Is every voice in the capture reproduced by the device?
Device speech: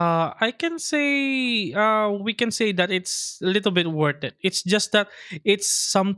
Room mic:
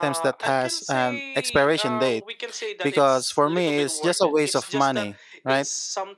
No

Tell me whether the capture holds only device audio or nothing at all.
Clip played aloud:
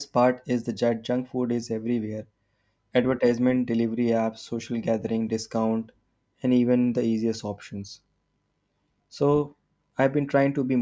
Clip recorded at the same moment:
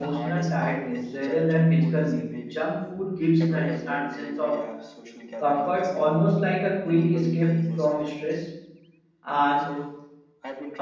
No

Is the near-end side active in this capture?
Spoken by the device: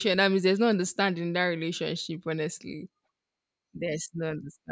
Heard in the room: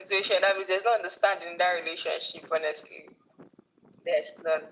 No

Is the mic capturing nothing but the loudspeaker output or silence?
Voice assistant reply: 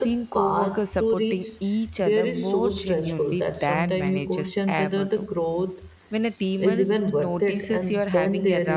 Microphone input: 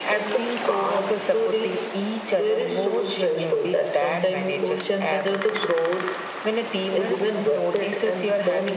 Yes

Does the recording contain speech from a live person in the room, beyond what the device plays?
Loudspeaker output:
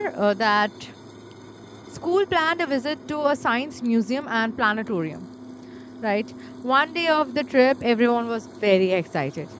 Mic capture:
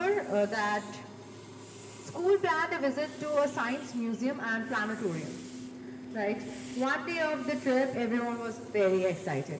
No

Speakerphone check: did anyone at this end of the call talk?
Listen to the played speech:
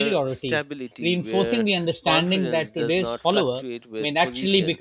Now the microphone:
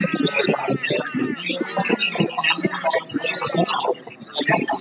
No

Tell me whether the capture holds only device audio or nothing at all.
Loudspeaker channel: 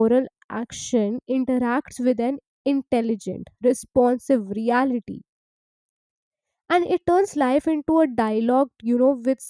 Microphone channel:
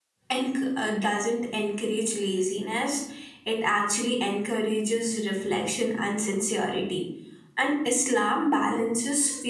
No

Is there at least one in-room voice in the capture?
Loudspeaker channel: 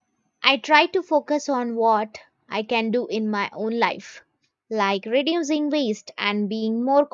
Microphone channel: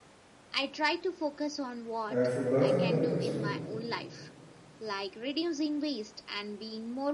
Yes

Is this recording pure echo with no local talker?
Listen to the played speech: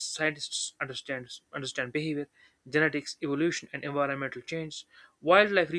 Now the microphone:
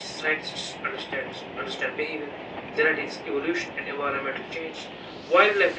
Yes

